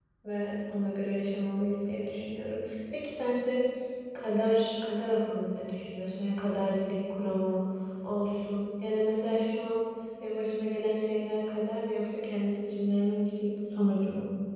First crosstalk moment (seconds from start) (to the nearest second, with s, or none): none